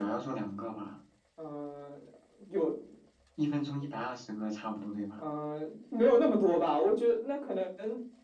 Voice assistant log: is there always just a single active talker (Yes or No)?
Yes